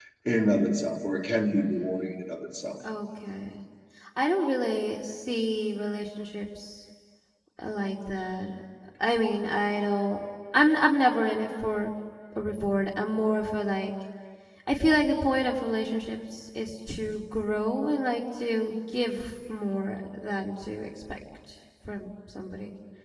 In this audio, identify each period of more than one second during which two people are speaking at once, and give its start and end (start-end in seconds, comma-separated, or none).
none